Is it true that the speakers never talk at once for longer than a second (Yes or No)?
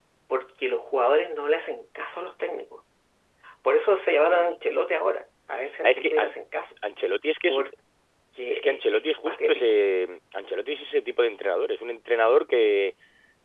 No